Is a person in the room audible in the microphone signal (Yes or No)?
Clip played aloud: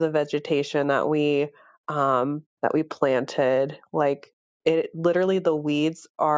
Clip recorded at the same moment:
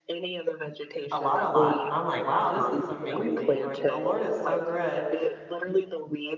Yes